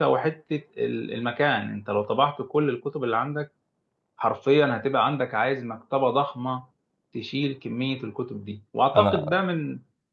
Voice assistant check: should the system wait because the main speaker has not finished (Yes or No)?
Yes